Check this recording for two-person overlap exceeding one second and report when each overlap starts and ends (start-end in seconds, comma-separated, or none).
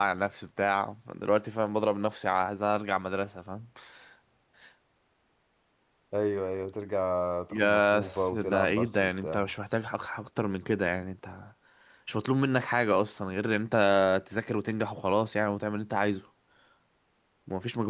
7.5-9.4